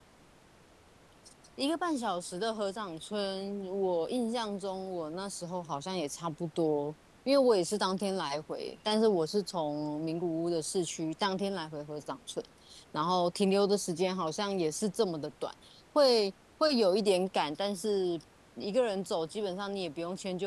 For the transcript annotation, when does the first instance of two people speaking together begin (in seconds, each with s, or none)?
none